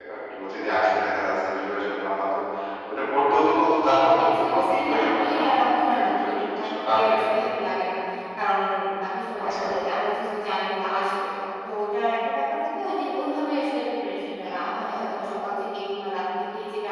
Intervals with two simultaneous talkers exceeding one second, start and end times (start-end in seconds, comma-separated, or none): 4.2-7.3